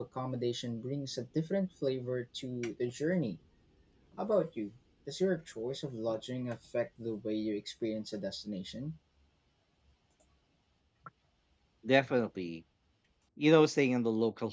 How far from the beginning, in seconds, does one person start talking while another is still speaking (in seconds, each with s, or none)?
none